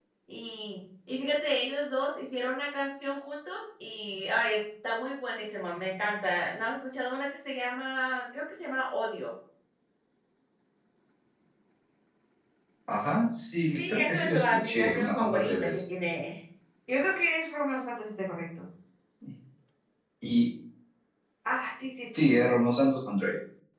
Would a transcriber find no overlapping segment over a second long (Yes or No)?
No